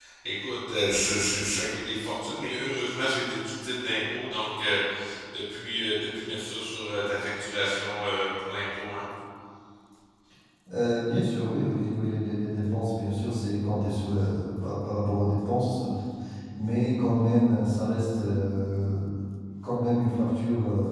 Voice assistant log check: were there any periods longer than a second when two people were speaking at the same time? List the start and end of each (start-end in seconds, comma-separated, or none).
none